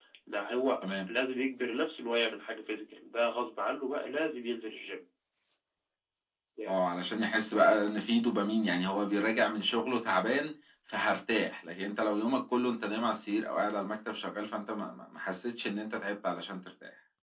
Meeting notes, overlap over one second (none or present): none